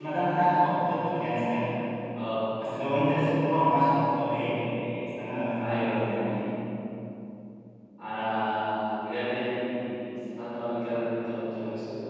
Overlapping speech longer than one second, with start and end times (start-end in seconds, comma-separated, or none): none